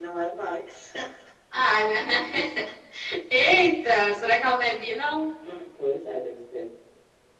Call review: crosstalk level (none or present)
none